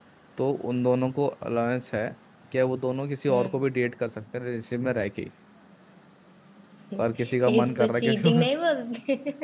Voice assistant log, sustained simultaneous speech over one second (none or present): present